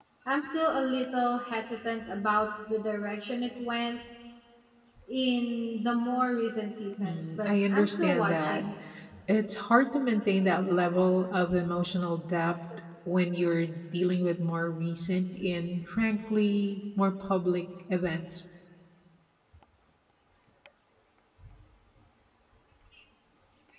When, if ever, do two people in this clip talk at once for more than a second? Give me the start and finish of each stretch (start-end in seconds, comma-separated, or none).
7.0-8.6